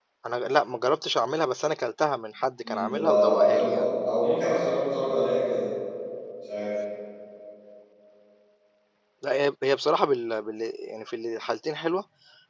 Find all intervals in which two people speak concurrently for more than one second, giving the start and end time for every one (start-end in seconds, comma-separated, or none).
2.6-3.8